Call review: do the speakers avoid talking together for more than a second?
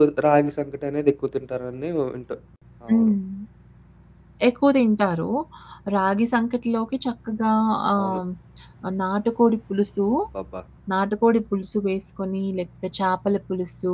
Yes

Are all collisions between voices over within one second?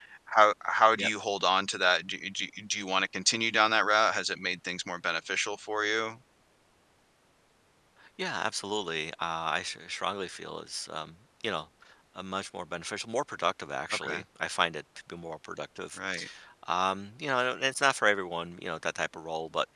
Yes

